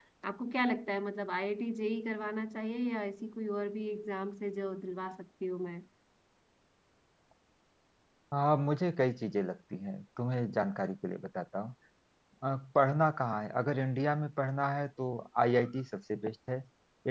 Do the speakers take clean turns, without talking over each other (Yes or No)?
Yes